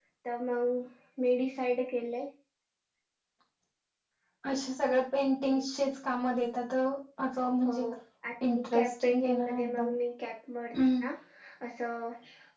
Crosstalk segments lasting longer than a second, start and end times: 8.5-9.9

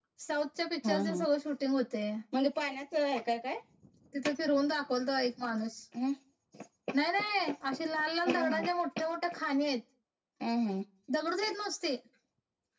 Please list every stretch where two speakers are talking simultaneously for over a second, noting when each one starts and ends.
none

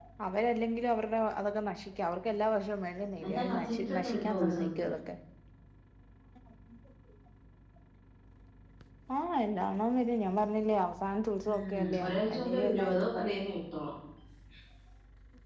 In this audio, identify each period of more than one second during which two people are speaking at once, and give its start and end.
3.2-4.9, 11.5-13.3

